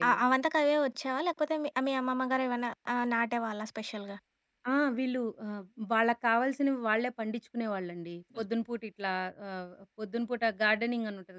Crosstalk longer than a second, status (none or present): none